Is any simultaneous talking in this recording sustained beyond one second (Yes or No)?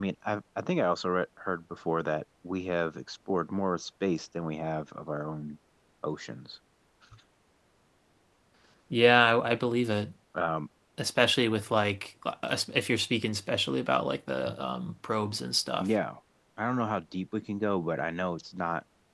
No